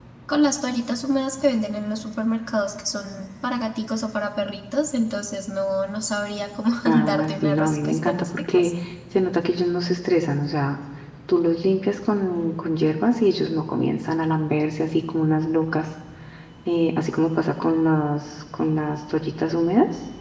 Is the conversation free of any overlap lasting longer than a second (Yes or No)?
No